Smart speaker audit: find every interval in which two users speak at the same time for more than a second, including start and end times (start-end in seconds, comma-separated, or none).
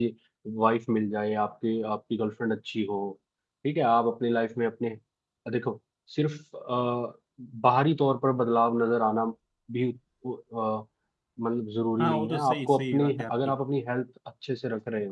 12.0-13.5